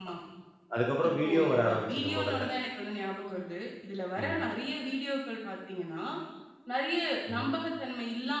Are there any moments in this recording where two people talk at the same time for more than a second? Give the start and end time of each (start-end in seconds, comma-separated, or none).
1.1-2.4